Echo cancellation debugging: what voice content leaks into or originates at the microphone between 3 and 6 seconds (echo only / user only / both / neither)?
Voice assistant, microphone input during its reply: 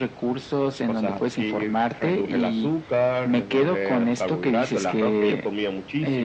echo only